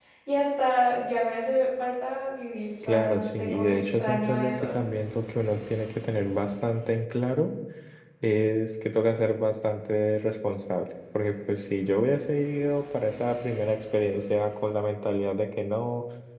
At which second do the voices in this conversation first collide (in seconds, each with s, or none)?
2.8 s